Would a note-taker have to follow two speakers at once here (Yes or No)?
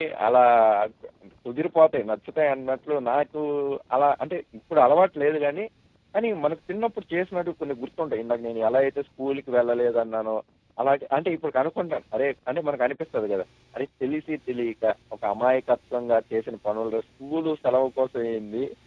No